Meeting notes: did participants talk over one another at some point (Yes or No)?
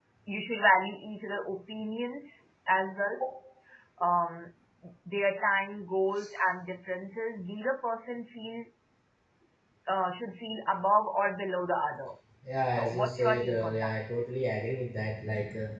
Yes